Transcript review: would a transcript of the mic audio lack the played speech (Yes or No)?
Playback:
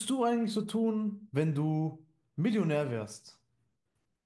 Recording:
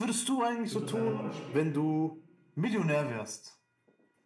No